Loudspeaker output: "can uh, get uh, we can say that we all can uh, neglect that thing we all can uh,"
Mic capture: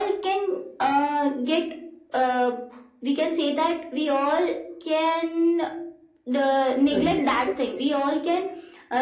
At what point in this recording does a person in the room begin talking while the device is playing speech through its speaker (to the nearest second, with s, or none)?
7 s